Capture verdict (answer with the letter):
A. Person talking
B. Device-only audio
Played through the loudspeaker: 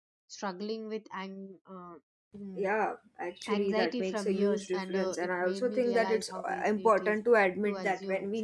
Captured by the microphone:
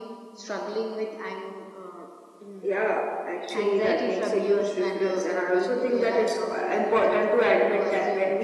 B